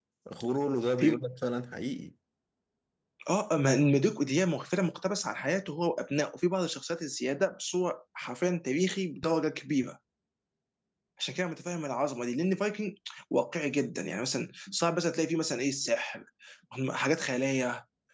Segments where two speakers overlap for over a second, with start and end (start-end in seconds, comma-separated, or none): none